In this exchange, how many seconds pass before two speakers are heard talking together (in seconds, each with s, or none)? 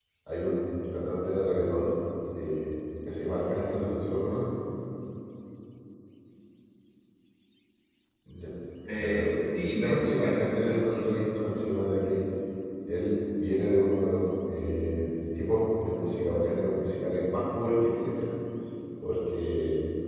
8.9 s